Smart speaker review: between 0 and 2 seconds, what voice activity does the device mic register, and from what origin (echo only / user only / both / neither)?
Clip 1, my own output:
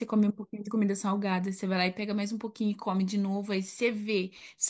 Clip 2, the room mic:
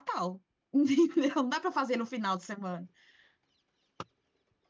user only